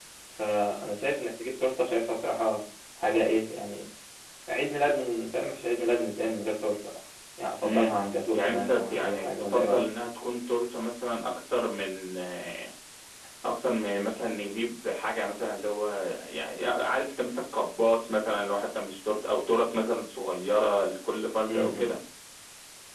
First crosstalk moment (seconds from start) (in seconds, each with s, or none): 7.6 s